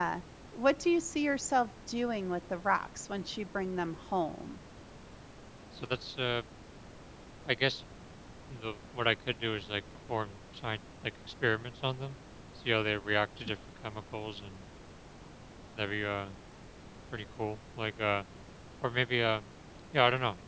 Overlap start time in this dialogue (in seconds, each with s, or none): none